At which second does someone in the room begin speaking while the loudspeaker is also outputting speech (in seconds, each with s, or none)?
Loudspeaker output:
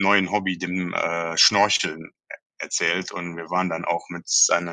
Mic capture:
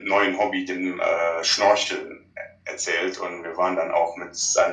none